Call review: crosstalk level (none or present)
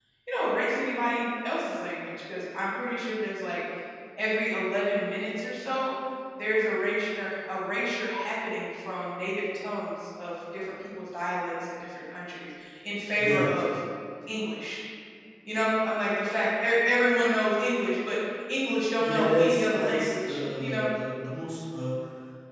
present